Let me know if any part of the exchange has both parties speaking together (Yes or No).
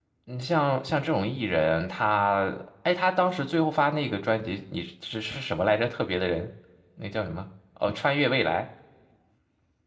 No